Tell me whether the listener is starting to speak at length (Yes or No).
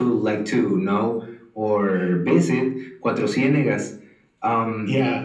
Yes